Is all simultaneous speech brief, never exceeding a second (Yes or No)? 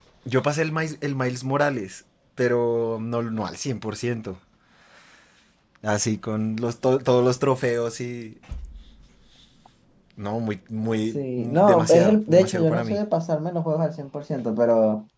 No